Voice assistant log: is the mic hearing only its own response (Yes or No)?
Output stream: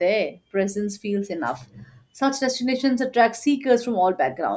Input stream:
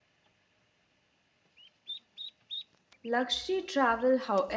No